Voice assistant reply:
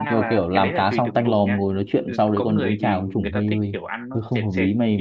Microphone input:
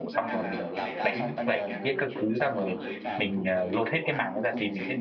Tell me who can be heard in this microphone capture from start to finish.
both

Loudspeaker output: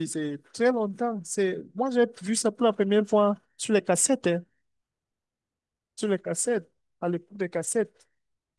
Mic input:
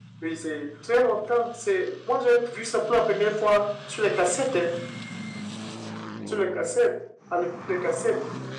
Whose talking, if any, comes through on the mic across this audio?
echo only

